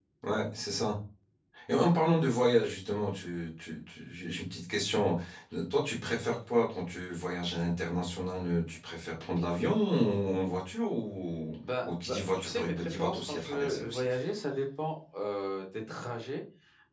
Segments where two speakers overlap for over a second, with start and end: 11.9-14.0

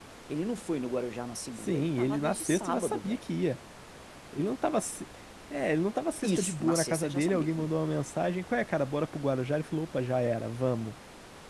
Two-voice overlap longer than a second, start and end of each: 1.6-3.2, 6.2-7.7

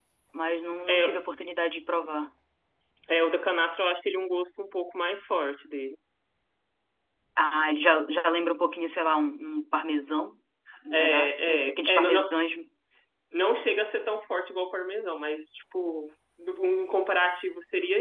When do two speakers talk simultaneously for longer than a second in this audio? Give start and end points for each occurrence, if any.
10.9-12.3

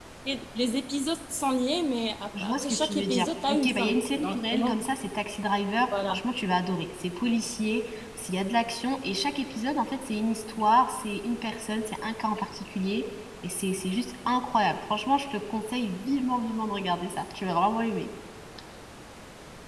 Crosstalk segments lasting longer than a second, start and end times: 2.3-4.8

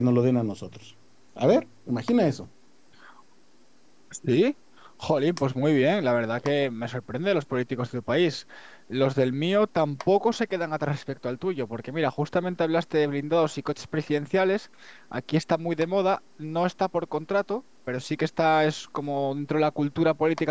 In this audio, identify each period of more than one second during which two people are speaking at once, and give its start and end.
none

